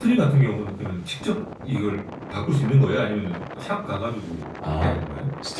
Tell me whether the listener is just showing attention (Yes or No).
No